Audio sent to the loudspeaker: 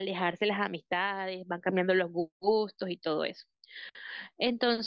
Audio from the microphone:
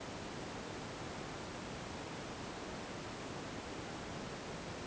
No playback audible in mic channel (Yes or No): Yes